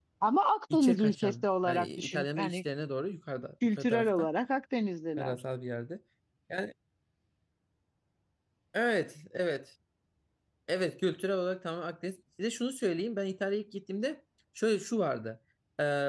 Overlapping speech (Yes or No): Yes